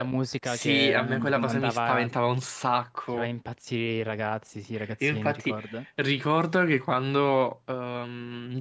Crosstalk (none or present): present